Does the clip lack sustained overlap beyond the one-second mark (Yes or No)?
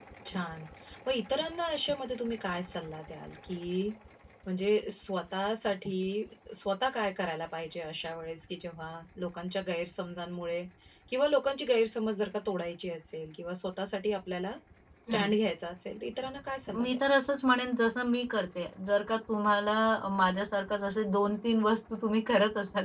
Yes